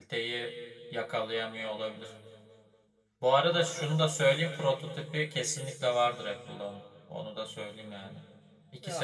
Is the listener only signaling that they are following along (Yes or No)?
Yes